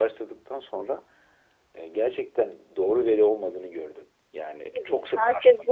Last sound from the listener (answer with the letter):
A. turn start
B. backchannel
A